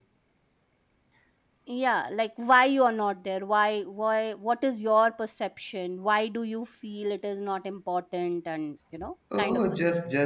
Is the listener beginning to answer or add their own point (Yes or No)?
Yes